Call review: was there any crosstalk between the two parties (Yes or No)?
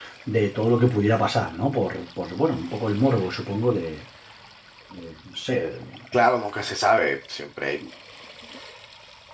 No